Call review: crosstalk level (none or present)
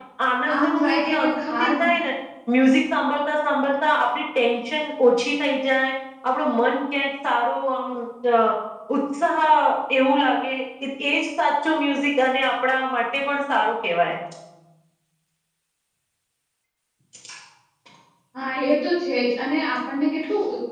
present